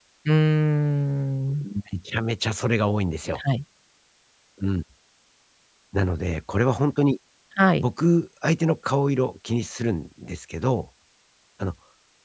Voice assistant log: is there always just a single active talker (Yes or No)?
Yes